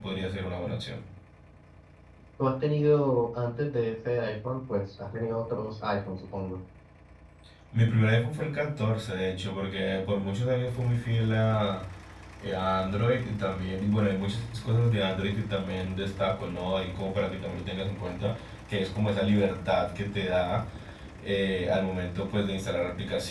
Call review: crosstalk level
none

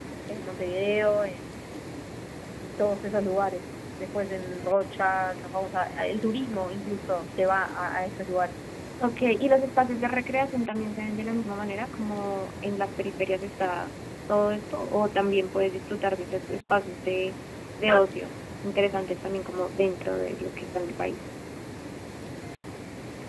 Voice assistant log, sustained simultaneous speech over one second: none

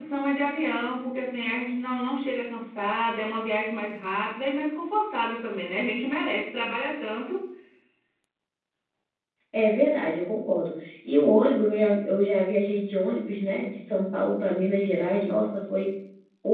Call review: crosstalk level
none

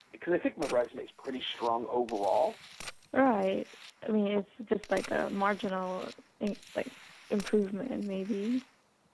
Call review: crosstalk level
none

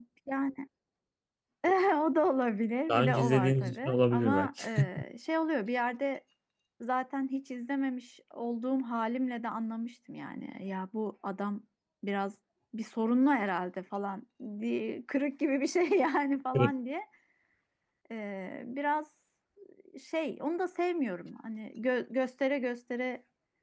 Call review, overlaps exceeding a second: present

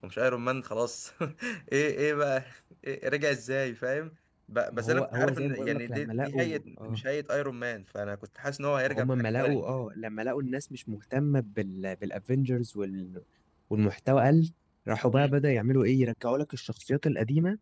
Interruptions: present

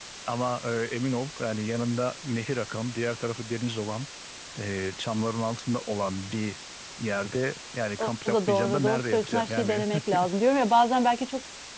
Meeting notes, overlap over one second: present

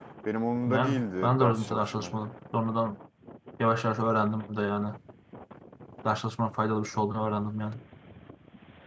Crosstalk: present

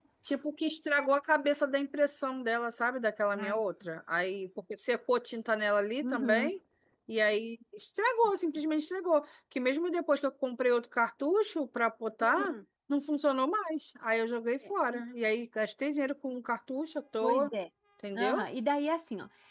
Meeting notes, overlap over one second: none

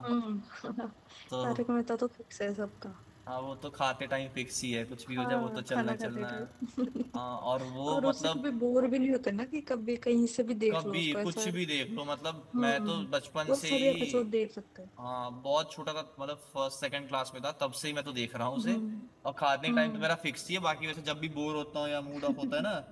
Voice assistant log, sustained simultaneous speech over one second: present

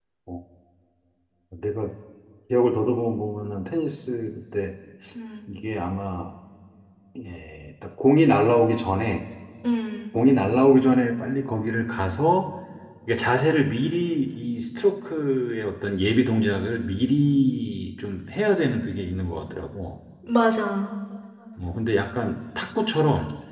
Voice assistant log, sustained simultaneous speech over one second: none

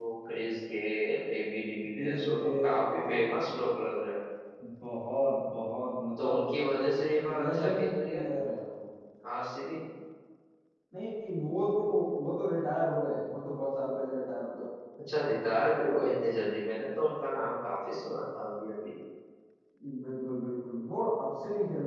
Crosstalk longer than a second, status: present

